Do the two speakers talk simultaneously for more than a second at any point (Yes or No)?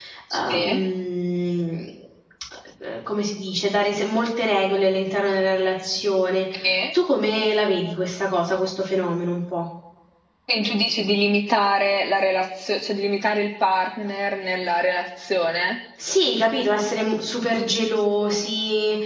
No